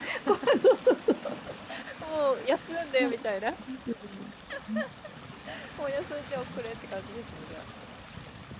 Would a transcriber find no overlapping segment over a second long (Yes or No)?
Yes